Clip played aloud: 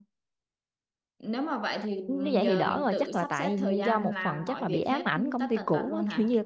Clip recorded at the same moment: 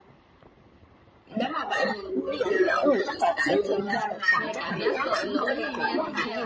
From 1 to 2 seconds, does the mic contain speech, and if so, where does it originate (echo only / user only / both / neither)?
echo only